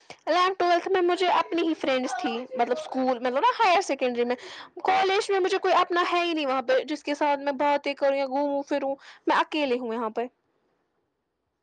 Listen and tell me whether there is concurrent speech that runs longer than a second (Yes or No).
No